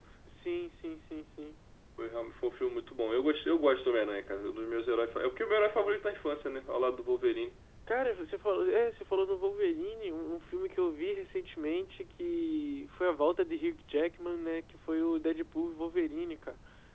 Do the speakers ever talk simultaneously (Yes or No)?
No